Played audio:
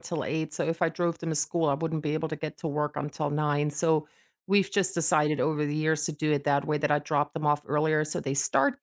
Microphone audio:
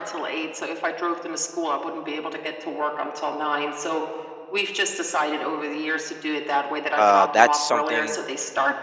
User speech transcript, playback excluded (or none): uh, that's something